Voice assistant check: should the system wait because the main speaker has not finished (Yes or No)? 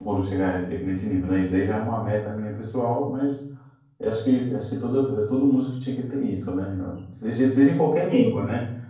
Yes